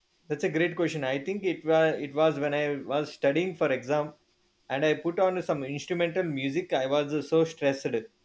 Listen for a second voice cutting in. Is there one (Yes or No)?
No